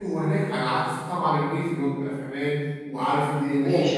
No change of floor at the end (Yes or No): No